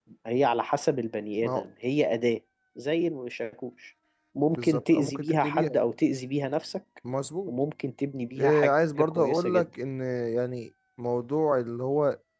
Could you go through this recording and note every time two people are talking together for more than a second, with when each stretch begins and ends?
4.5-5.8, 8.4-9.7

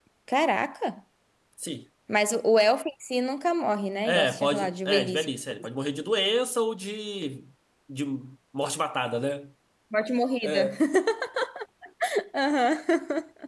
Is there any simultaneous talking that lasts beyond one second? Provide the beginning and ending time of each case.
4.0-5.3

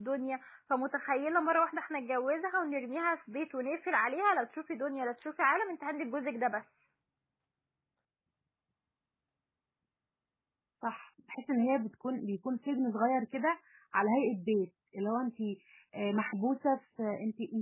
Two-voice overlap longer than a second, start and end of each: none

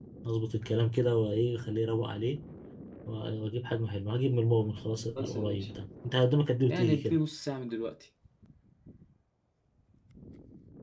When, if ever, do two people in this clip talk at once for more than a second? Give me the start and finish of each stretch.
none

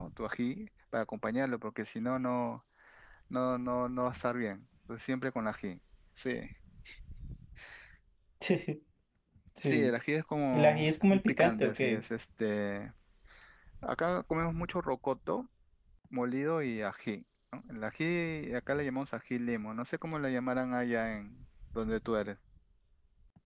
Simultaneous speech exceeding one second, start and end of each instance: 10.5-12.0

